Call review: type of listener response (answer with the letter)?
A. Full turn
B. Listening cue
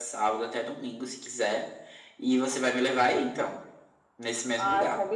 A